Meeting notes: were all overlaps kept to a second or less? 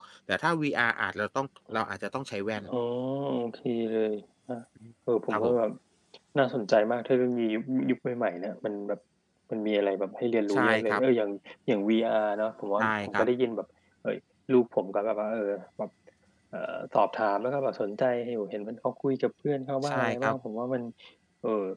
Yes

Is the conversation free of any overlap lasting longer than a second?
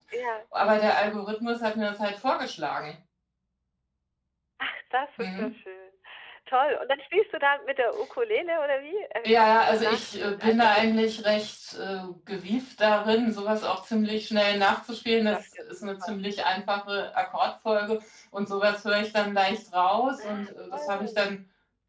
No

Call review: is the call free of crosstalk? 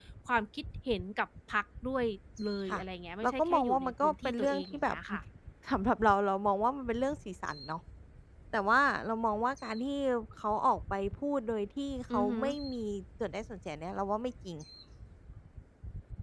No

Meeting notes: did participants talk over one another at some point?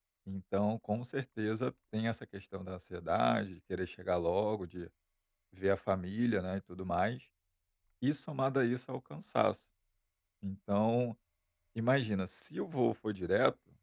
No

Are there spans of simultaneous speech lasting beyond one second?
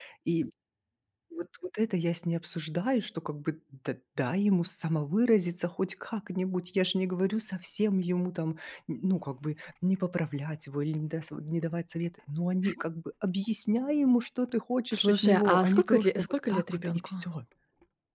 Yes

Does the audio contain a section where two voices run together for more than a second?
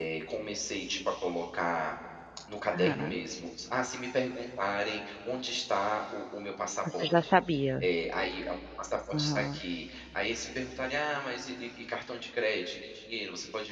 No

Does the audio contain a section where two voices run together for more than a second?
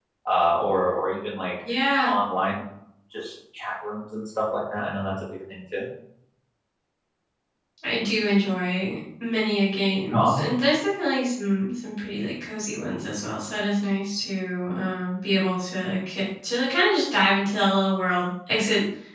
No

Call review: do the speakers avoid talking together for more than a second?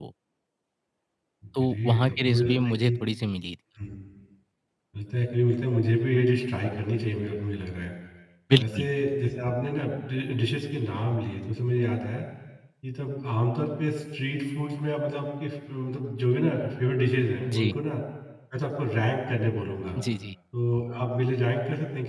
No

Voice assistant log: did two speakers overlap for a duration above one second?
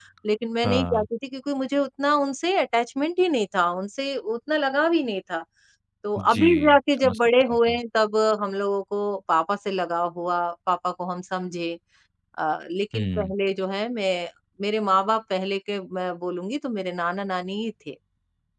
Yes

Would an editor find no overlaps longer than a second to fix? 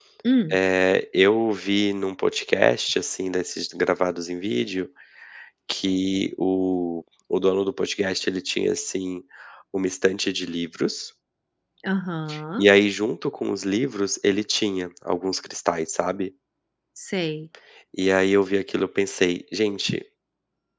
Yes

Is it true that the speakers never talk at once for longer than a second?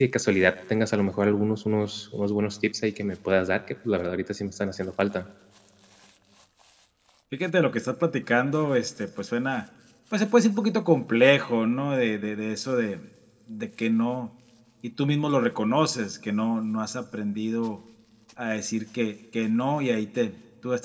Yes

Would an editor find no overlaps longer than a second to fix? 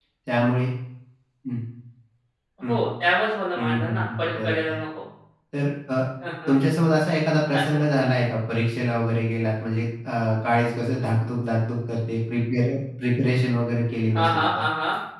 No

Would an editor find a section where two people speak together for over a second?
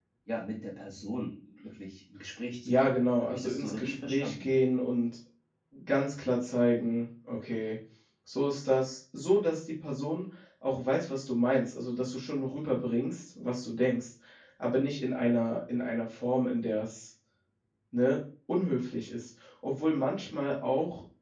Yes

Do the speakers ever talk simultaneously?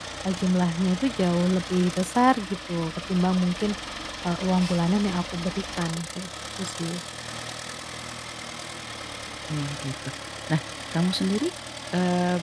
No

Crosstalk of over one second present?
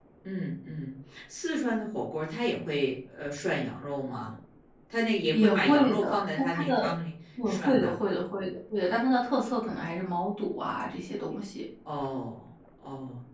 Yes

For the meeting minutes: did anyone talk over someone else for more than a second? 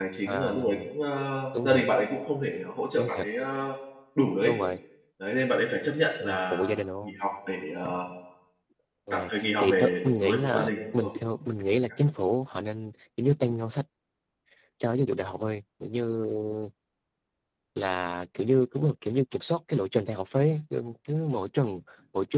Yes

